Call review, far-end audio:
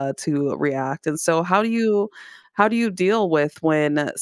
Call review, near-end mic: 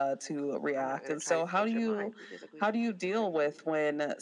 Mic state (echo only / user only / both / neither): both